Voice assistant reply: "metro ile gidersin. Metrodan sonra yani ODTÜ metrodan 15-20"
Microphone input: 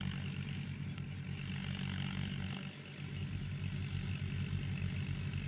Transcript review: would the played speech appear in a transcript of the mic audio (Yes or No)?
No